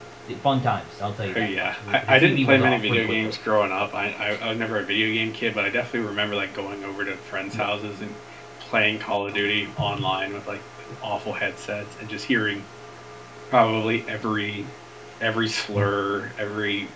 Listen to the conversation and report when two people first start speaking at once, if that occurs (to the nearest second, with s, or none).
1 s